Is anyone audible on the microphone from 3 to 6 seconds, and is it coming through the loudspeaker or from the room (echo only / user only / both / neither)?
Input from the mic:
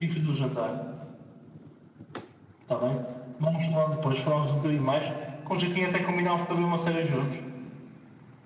echo only